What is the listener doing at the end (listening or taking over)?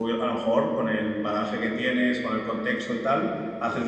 listening